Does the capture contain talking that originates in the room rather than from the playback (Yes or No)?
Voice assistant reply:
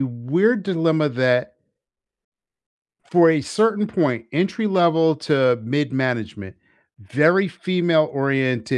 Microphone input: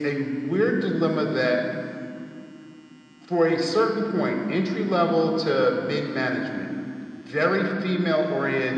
No